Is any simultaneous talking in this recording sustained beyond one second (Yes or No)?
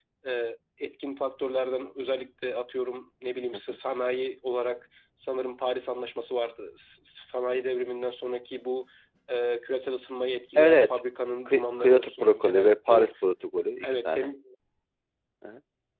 Yes